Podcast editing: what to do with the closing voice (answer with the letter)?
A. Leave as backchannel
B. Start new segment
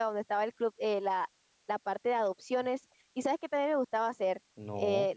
A